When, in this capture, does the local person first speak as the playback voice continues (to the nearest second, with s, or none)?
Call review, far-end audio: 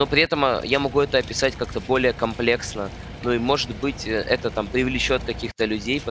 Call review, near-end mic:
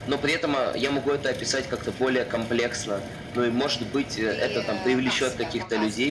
4 s